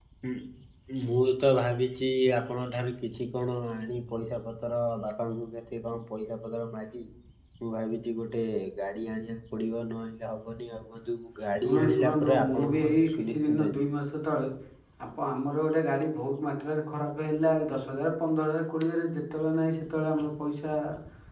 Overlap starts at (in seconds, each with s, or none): 11.6 s